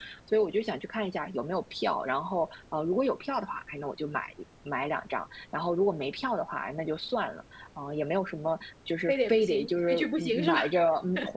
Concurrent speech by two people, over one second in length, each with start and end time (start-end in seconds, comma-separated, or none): 9.1-10.6